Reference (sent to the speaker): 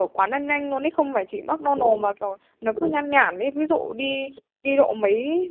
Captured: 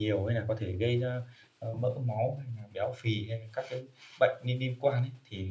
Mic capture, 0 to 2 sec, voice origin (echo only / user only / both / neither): user only